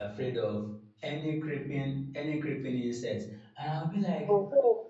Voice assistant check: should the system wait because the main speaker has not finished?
Yes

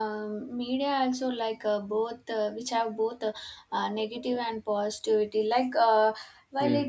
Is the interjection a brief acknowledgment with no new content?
Yes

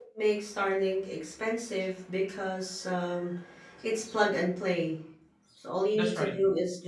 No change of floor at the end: Yes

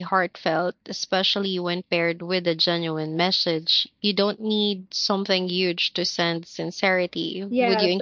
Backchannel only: No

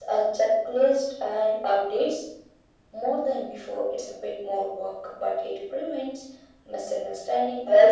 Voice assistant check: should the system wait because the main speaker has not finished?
No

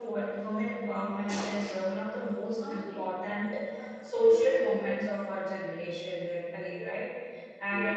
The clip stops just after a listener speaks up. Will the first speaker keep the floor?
Yes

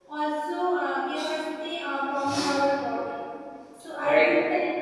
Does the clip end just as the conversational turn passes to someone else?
No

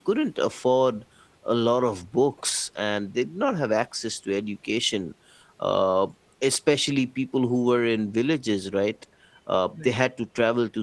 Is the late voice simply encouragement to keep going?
Yes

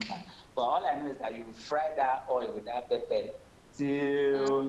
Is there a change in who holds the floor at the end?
No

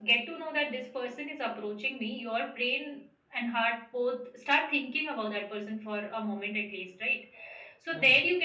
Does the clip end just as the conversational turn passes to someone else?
No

